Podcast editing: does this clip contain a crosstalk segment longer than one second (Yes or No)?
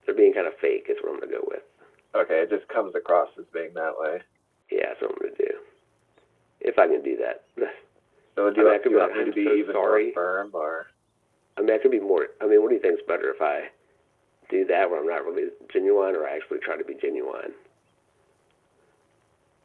Yes